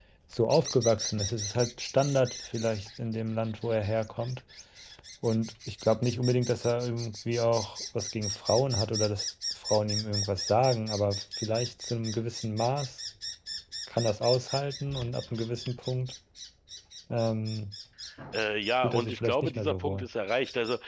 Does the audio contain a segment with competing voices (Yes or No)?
Yes